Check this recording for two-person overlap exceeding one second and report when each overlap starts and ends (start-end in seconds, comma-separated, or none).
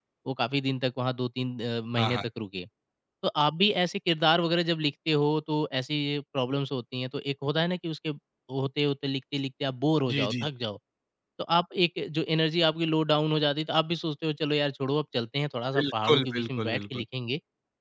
15.8-17.0